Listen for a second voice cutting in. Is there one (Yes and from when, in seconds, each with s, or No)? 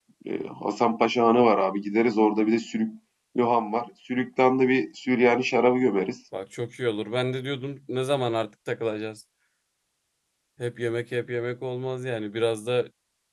No